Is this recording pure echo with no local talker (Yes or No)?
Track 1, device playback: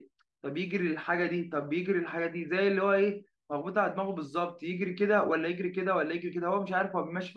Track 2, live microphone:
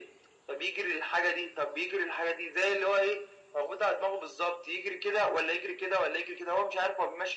Yes